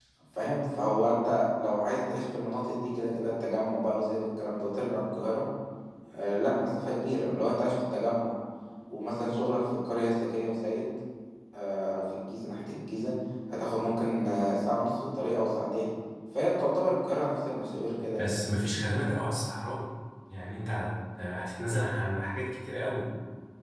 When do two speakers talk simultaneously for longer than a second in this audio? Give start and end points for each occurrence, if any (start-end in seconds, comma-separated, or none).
none